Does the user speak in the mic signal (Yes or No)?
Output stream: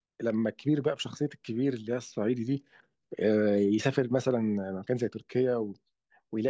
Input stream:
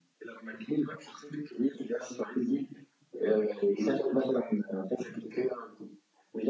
No